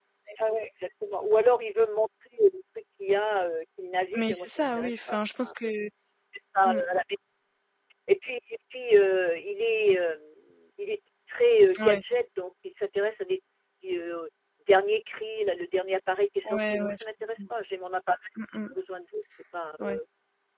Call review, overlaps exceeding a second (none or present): present